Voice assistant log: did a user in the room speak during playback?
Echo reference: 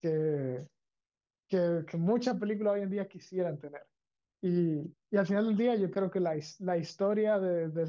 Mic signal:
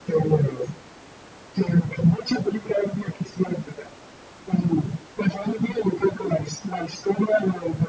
No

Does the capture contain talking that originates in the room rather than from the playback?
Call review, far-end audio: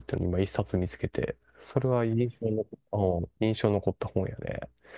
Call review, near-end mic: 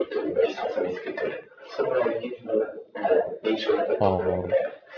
Yes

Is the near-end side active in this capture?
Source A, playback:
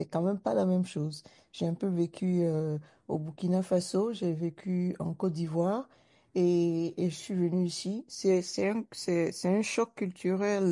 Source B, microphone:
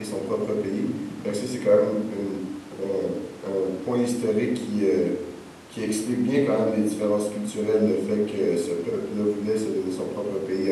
Yes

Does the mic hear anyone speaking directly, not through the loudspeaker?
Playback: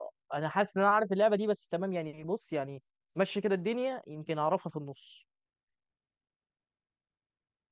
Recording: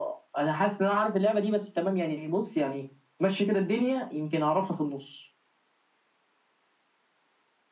No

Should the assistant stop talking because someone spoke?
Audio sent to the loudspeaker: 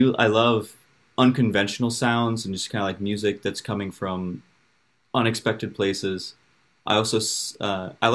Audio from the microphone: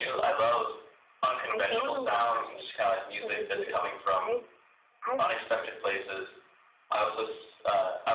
Yes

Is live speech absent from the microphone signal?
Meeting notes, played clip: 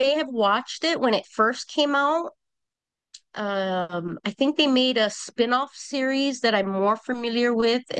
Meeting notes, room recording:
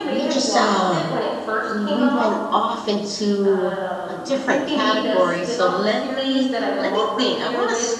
No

